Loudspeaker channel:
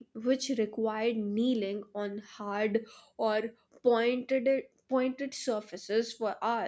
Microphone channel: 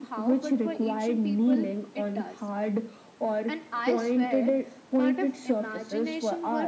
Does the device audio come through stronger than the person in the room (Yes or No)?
Yes